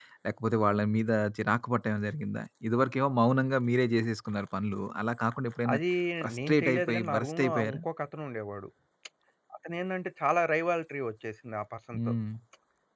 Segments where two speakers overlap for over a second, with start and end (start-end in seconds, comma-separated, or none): 6.5-7.8